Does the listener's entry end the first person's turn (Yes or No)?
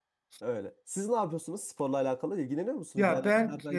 Yes